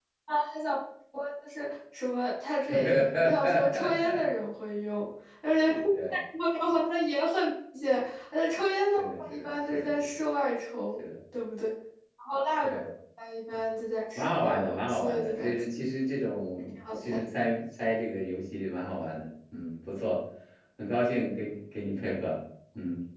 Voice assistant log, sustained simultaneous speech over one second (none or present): present